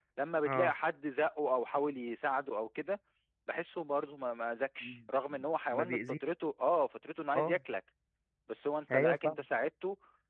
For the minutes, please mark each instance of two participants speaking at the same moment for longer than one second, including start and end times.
none

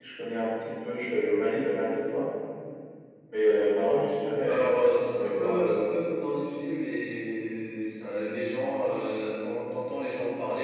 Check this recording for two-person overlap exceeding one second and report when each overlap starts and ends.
4.5-5.9

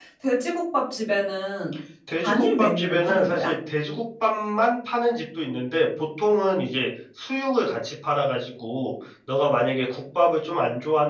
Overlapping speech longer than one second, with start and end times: 2.2-3.5

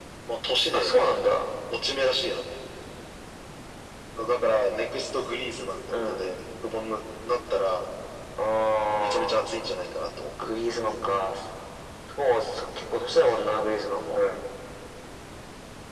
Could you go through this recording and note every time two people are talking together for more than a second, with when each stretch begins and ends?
none

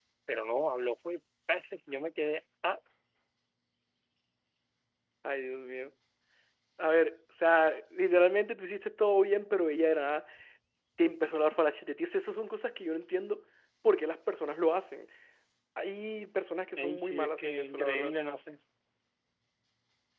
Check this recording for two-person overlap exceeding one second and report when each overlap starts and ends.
16.8-18.1

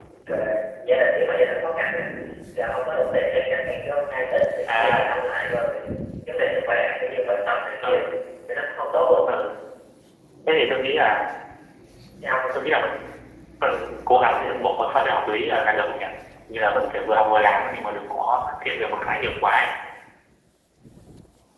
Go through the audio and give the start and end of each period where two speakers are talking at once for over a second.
none

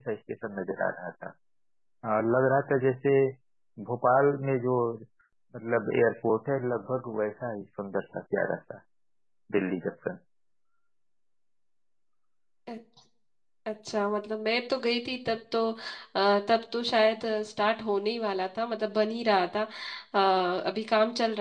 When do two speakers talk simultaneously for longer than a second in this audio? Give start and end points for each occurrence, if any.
none

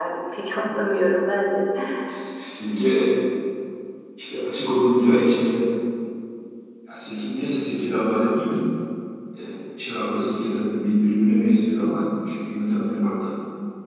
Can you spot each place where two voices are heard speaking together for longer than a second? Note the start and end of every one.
none

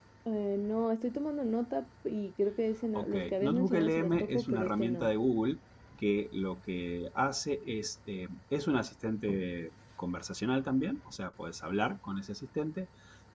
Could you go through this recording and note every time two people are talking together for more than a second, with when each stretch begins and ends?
3.0-5.1

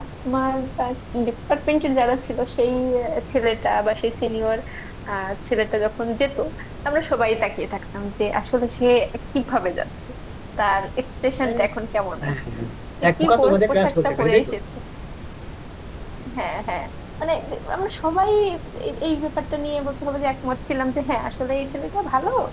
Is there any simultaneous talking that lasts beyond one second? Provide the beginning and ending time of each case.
13.1-14.5

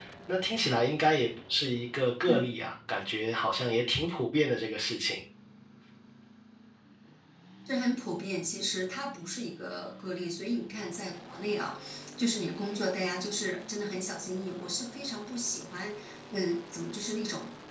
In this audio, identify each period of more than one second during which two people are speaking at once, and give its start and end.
none

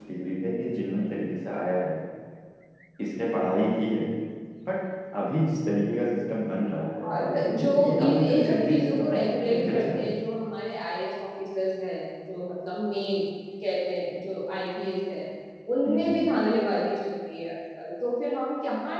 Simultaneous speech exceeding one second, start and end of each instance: 7.0-10.0

